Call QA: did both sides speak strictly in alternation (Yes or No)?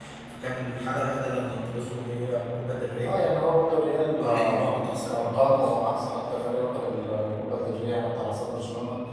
No